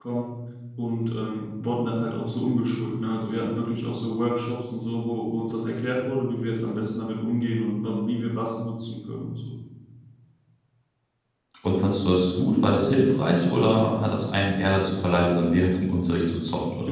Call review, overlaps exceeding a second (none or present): none